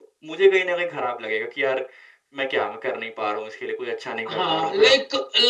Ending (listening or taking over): taking over